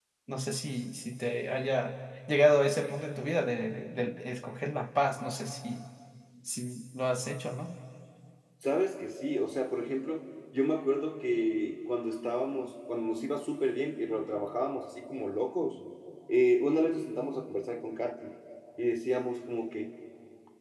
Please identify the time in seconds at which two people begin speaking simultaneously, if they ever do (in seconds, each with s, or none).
none